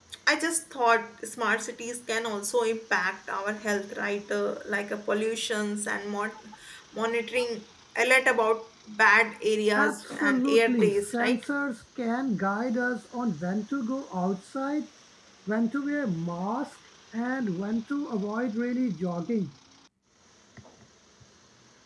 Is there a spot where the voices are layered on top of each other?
Yes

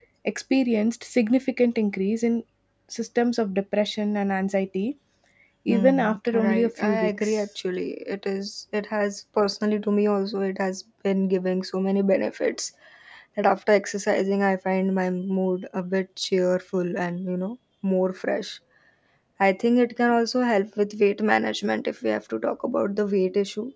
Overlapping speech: Yes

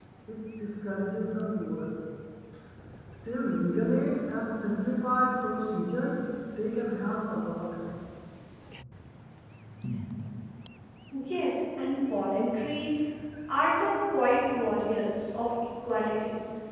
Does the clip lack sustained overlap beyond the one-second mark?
Yes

